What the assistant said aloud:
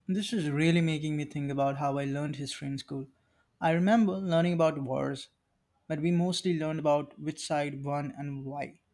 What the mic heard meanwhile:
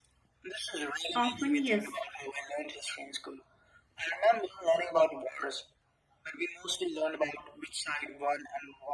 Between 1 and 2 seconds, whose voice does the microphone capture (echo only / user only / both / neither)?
both